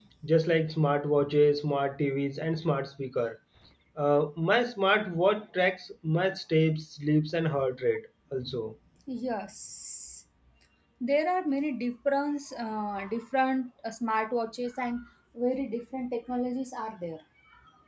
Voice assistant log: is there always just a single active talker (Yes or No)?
Yes